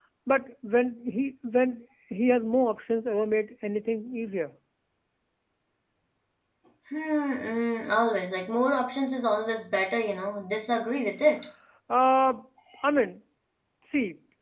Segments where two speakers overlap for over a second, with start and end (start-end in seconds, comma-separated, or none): none